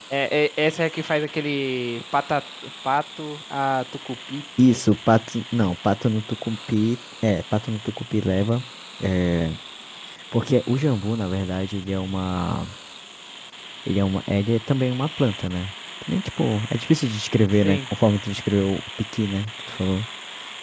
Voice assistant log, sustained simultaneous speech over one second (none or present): none